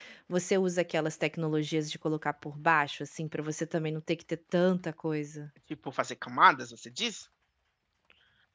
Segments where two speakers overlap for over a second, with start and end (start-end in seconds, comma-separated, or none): none